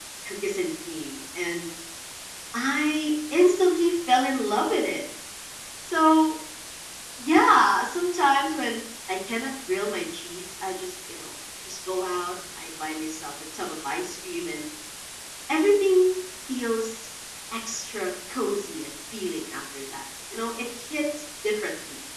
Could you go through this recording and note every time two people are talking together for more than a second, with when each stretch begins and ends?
none

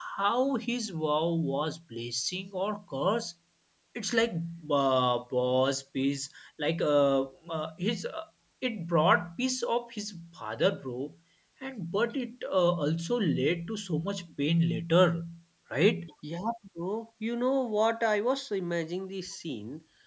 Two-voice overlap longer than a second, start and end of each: none

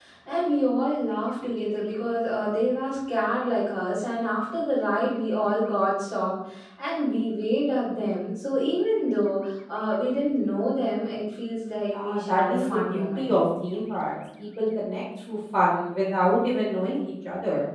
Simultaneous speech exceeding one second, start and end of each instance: 11.9-13.3

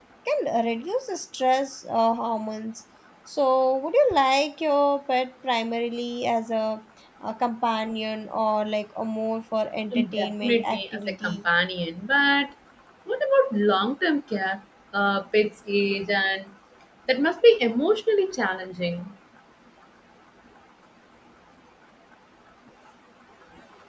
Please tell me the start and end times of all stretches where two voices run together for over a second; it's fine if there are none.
10.2-11.4

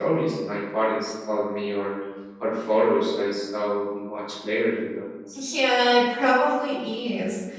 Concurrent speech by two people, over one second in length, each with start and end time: none

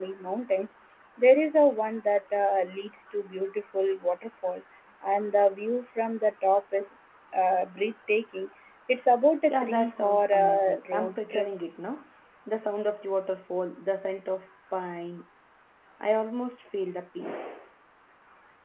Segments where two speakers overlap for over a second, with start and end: 9.5-11.5

